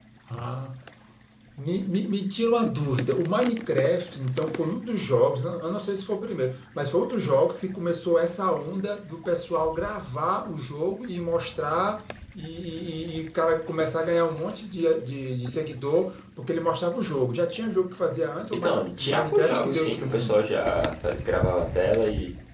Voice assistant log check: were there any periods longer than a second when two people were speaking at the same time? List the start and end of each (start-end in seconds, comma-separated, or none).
18.5-20.4